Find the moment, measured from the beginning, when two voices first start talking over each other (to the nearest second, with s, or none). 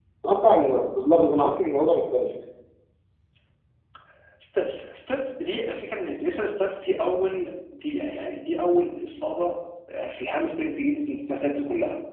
none